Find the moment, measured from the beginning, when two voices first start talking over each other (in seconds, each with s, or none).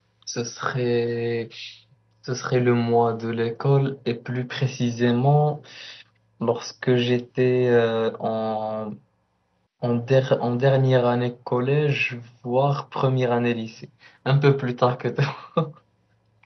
none